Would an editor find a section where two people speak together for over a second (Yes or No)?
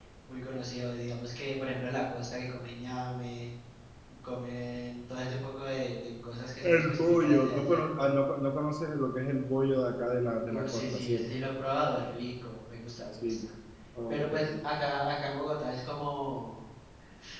Yes